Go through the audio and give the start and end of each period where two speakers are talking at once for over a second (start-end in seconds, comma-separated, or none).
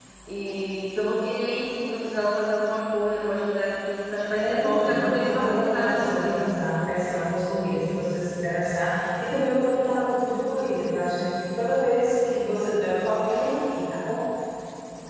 4.3-6.5